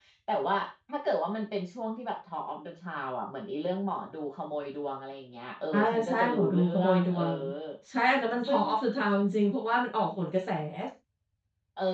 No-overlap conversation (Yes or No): No